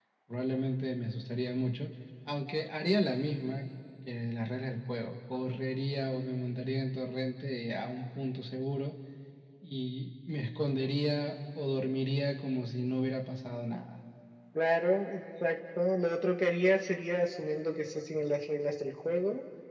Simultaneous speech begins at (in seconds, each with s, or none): none